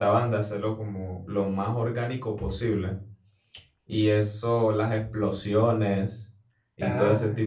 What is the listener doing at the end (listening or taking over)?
listening